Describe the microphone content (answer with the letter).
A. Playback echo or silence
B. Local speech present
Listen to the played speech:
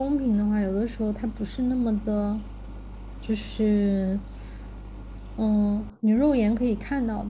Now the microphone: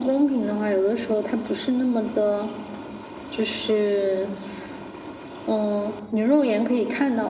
A